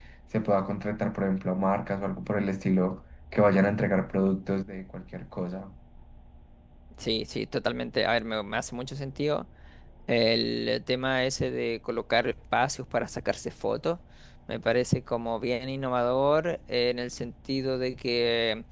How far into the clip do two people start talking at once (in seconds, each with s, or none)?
none